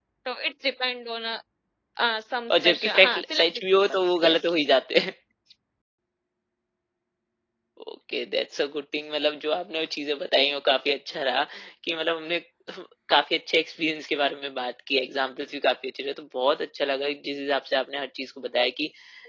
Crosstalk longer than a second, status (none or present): present